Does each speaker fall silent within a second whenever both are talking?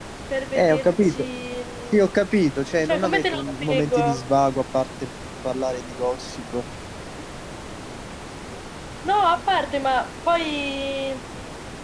No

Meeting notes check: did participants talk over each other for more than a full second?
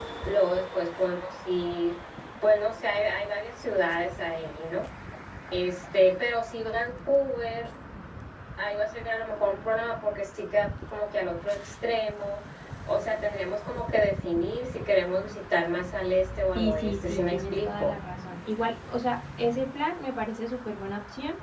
Yes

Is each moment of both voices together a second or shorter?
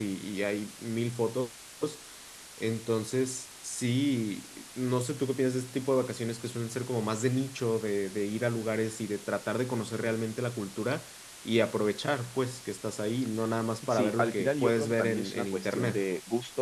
No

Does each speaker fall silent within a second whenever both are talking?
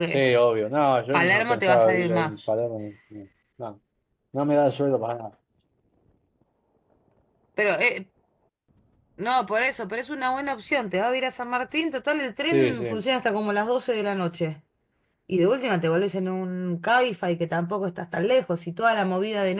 No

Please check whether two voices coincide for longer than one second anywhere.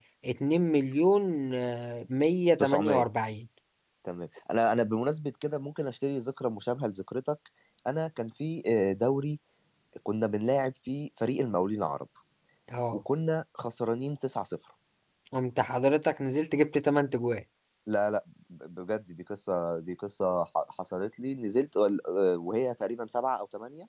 No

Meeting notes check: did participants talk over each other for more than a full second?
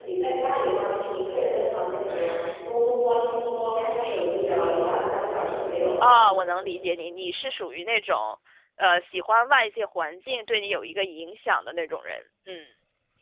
No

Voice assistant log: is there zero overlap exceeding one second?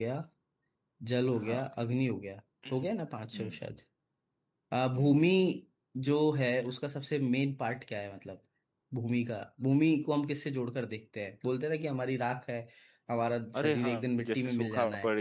No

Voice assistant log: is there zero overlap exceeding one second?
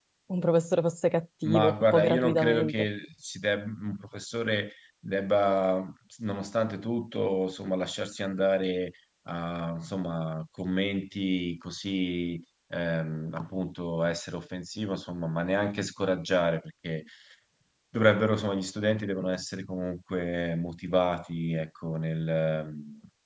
No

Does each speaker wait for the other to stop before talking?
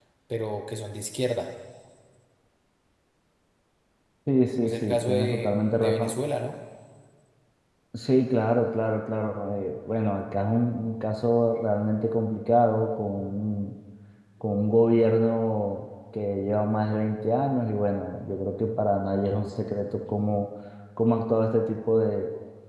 No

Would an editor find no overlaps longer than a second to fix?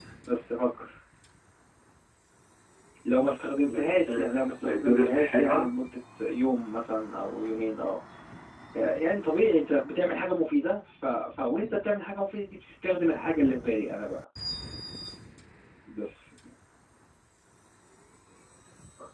No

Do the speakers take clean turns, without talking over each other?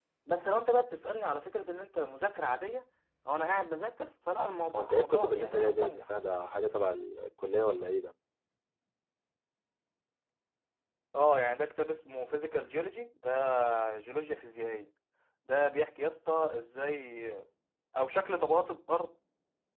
No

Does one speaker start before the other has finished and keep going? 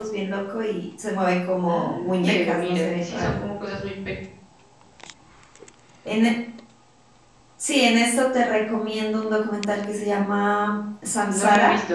Yes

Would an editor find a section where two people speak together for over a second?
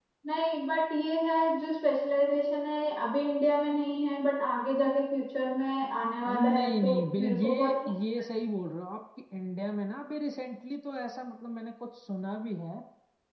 Yes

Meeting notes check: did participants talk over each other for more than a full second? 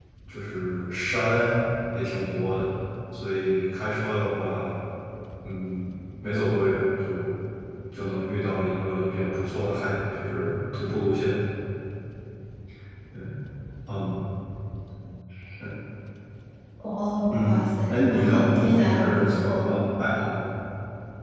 Yes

